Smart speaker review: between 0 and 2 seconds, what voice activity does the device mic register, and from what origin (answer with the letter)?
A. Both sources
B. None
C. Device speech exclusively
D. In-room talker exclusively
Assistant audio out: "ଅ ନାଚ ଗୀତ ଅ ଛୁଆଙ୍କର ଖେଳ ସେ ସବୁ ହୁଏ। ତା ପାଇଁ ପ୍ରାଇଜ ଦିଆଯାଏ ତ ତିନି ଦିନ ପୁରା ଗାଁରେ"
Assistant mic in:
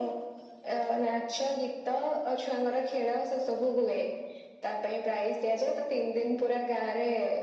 C